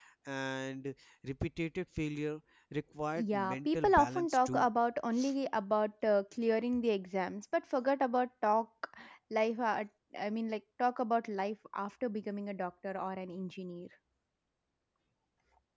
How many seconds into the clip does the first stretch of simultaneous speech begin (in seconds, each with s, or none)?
3.2 s